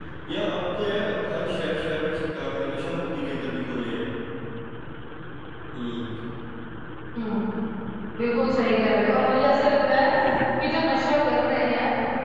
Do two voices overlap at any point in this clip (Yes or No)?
No